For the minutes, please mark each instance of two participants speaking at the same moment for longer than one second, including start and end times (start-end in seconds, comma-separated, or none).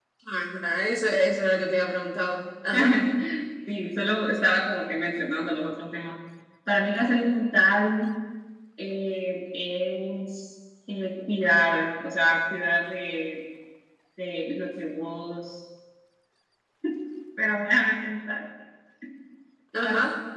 none